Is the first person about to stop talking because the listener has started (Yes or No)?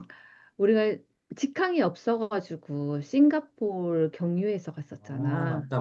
Yes